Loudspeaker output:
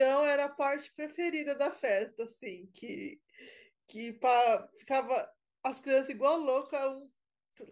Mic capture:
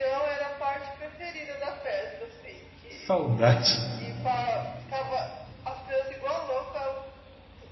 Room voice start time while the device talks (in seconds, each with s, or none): 2.9 s